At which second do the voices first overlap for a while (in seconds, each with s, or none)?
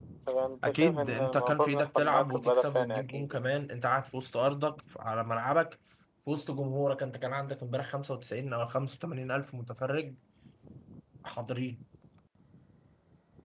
0.6 s